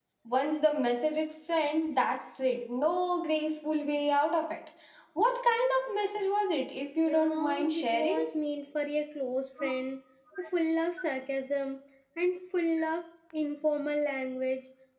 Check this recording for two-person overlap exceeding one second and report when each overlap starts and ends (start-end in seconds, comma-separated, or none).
7.0-8.3